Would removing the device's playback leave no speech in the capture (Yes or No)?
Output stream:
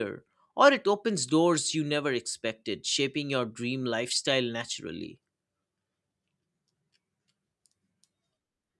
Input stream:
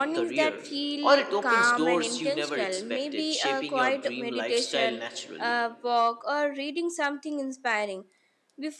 No